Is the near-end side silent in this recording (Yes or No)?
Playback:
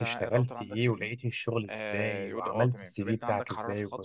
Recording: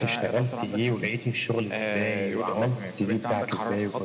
Yes